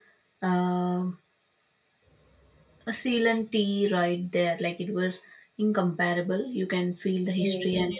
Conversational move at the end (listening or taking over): listening